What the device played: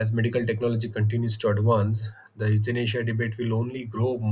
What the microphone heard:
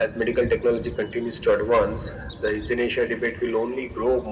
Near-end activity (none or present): none